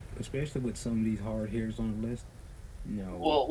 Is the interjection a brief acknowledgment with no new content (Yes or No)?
No